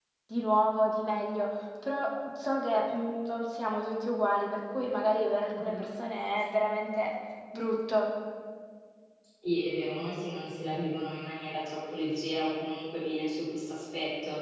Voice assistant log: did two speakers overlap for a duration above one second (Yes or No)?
No